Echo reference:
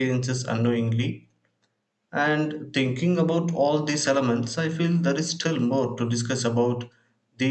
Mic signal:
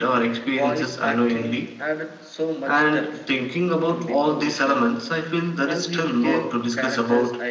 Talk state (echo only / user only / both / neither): both